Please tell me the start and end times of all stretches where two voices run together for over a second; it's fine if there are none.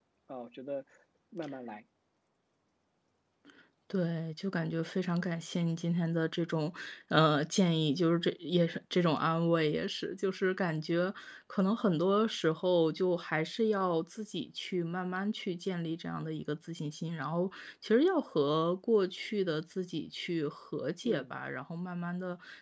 none

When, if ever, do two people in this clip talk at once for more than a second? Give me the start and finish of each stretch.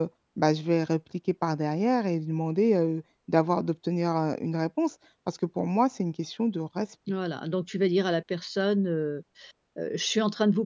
none

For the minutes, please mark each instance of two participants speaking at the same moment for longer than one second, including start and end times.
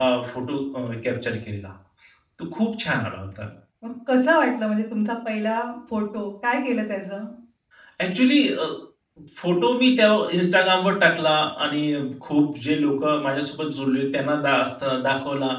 none

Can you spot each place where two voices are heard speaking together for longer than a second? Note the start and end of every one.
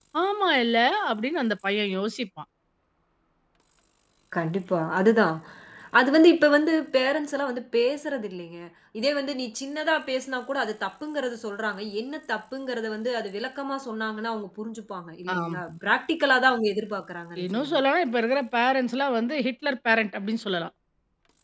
none

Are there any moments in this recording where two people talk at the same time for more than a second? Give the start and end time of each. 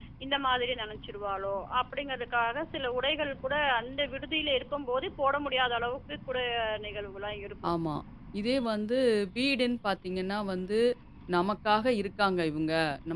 none

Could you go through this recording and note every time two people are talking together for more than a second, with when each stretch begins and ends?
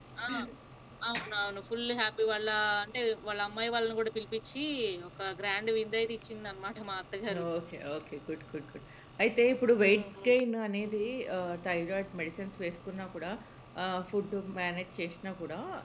none

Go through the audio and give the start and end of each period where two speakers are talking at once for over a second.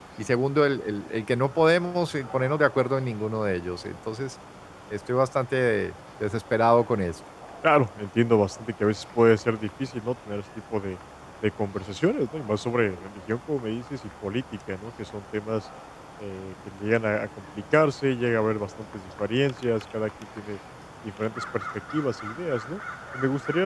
none

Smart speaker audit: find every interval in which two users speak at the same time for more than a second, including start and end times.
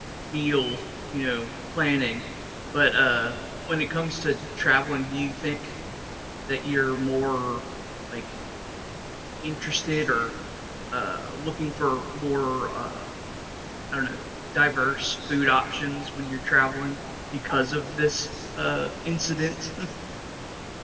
none

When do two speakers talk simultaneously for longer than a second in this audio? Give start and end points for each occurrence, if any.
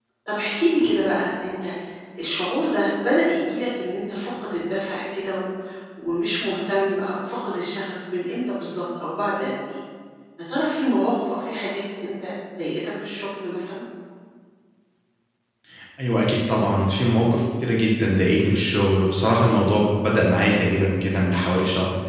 none

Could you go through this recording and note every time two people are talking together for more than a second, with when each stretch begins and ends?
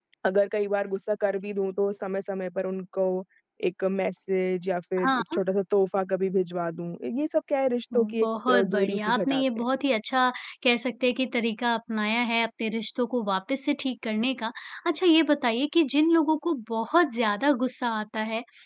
7.9-9.7

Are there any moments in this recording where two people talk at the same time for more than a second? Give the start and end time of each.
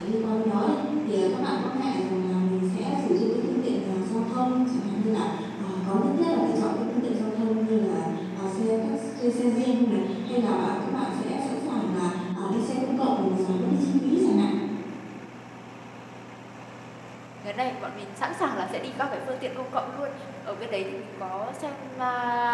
none

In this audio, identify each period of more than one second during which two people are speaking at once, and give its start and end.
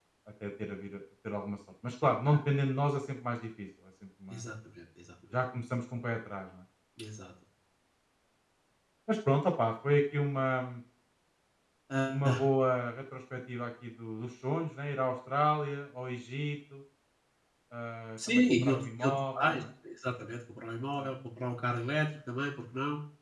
18.3-19.6

